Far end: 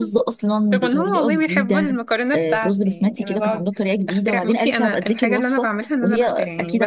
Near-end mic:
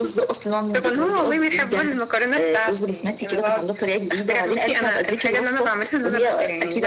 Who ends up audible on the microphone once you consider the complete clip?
echo only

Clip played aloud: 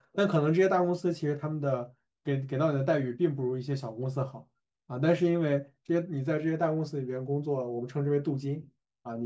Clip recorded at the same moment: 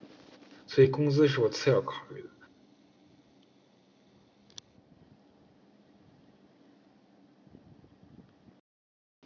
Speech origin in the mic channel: user only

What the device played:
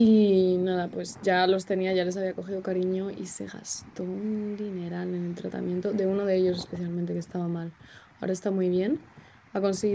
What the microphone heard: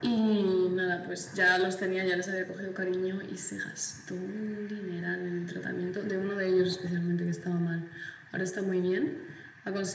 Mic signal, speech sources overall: echo only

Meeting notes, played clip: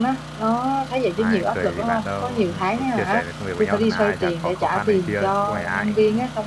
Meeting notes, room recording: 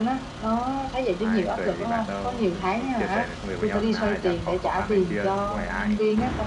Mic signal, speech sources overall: echo only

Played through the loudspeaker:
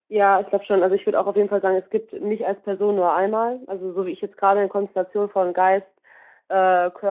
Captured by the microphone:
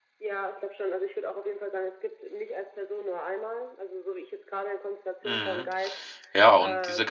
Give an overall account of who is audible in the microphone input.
both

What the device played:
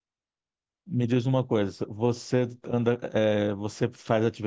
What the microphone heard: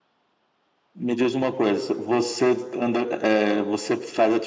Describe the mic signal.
echo only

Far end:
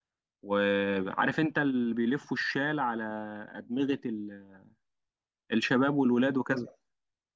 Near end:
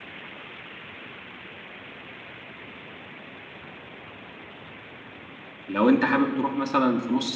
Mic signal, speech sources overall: user only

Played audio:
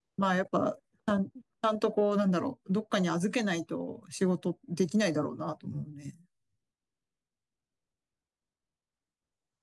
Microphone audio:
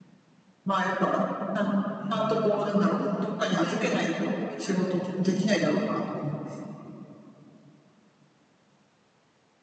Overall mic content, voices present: both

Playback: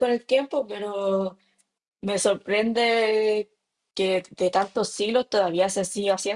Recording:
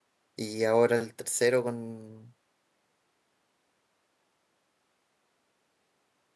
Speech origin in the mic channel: user only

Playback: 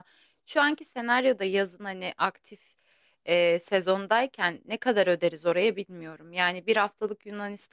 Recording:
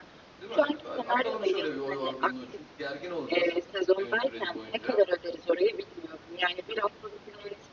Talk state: both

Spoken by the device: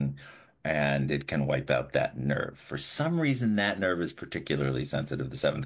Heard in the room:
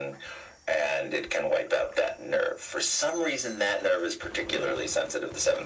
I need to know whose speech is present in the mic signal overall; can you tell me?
echo only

